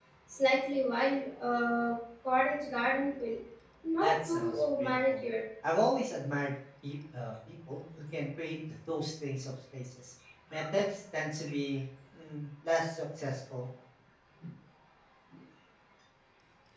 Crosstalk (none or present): present